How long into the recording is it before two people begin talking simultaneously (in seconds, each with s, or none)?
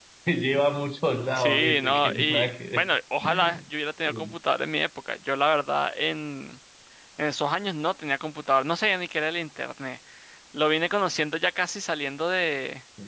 1.4 s